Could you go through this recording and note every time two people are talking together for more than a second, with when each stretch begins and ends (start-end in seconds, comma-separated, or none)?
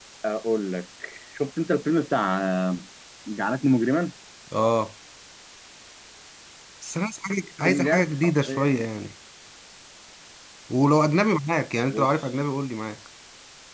7.6-8.8